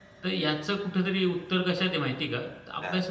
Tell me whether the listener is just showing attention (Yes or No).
Yes